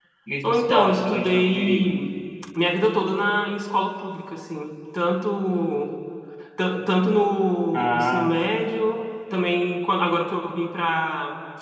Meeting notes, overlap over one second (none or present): present